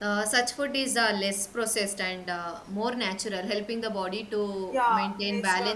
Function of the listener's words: taking over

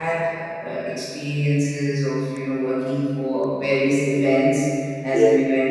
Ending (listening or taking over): listening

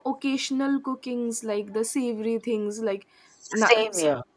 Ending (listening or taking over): listening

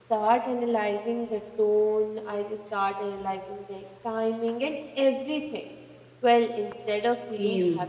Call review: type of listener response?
listening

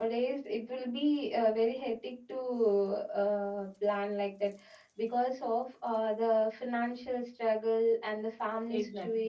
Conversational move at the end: listening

